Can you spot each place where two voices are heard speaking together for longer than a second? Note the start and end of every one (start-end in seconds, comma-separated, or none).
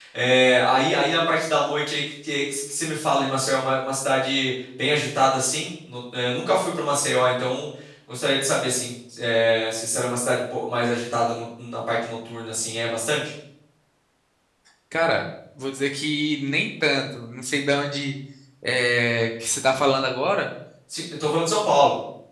none